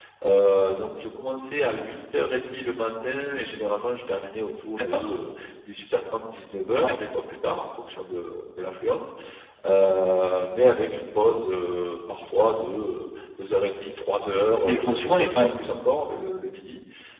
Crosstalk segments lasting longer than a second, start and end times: 14.4-15.7

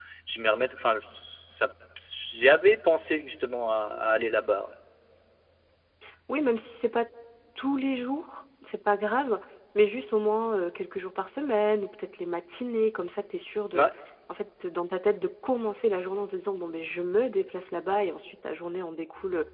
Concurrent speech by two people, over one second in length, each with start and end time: none

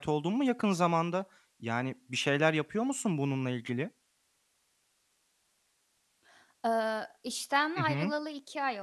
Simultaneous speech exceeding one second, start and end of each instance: none

